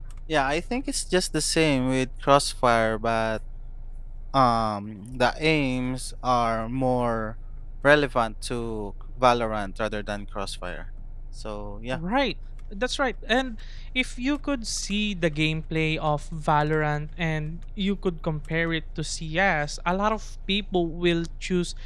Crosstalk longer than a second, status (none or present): none